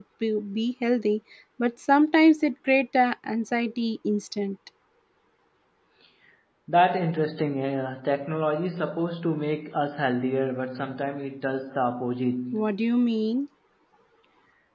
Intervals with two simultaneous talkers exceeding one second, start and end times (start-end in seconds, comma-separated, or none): none